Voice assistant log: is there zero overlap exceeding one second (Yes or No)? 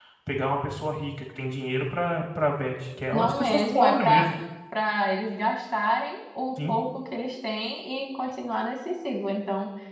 No